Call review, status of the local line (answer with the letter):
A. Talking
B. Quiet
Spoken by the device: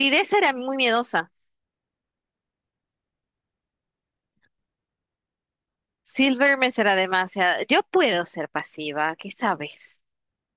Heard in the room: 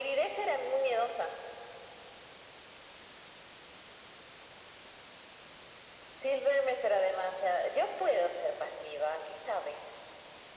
B